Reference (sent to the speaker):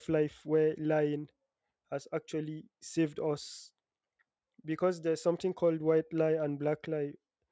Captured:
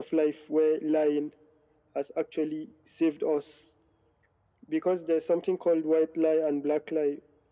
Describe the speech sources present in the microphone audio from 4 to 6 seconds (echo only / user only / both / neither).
echo only